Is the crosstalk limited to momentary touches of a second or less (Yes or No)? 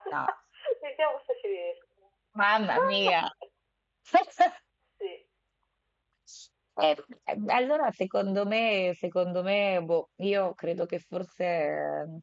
Yes